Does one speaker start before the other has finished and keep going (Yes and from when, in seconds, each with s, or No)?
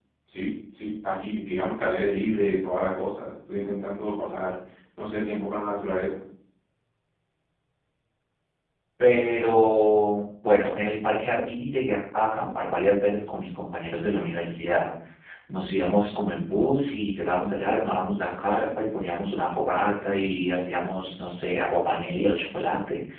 No